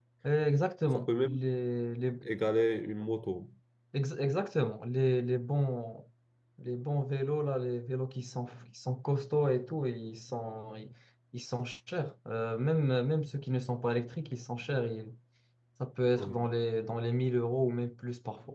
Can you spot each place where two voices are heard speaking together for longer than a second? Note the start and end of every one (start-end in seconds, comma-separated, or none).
none